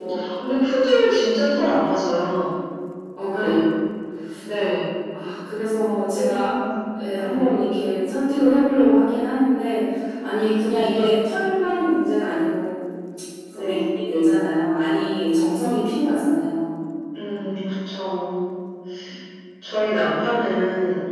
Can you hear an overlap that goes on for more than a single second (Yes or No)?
No